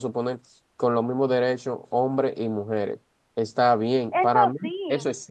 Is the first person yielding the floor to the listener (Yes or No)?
No